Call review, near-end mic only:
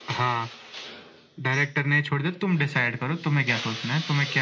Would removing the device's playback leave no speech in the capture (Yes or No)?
Yes